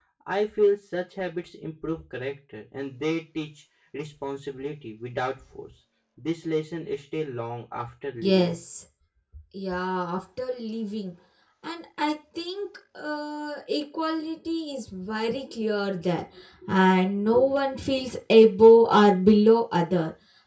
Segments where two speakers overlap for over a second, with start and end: none

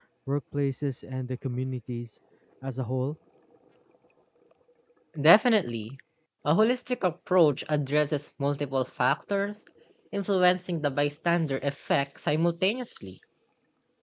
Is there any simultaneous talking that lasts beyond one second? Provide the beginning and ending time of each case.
none

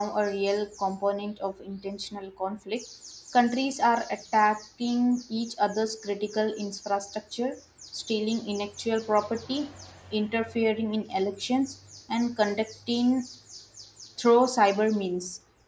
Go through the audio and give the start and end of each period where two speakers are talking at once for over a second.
none

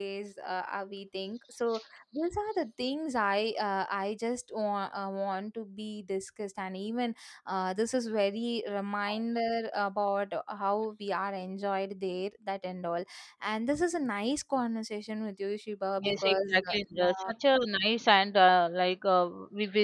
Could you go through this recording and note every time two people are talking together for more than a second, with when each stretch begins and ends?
16.0-17.3

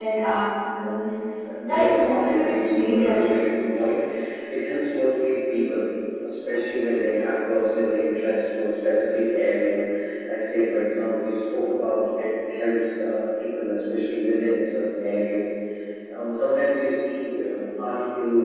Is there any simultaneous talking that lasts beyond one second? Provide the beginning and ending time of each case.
1.7-3.4

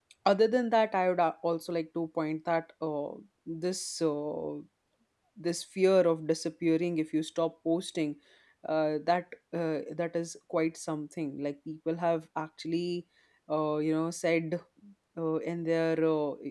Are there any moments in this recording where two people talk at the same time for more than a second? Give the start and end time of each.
none

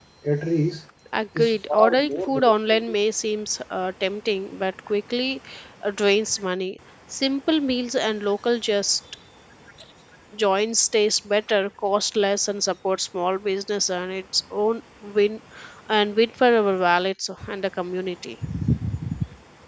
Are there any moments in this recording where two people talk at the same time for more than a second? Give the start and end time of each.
1.4-3.0

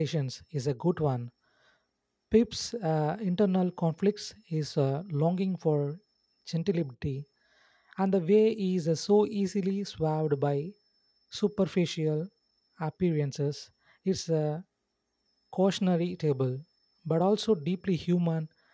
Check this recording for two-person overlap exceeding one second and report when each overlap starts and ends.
none

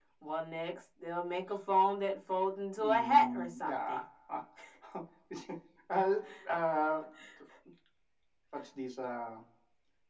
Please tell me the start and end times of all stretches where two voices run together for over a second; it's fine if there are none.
2.8-4.0

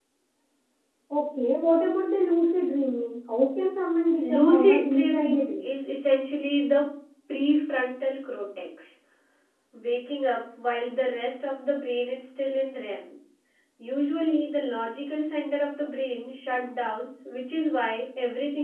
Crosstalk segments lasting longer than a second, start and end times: 4.2-5.7

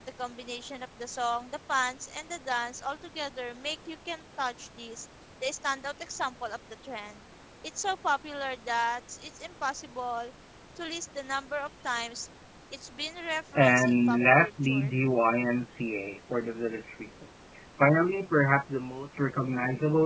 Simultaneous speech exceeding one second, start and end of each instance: 13.6-14.9

